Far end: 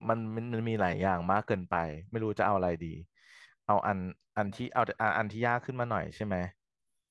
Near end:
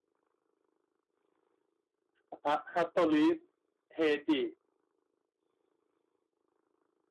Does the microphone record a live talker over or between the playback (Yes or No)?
Yes